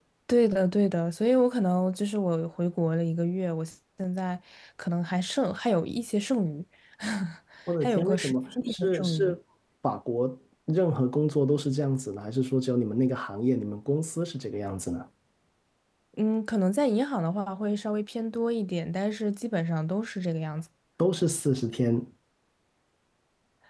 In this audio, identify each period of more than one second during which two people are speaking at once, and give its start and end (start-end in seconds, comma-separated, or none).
7.8-9.3